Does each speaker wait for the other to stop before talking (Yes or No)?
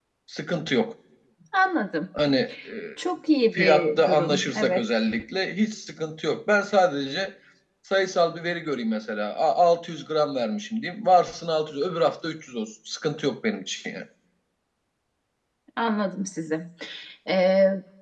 No